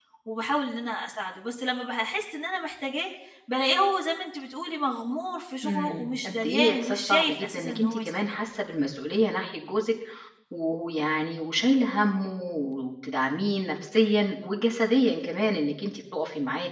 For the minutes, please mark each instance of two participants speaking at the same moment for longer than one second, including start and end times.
5.6-8.3

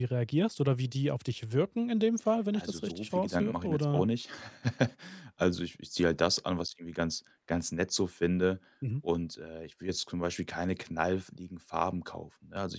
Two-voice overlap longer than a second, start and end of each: 2.5-4.0

